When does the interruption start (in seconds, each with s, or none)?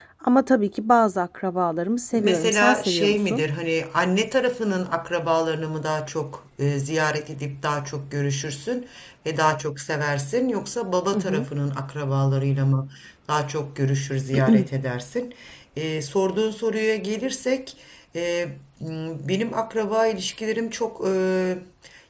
2.1 s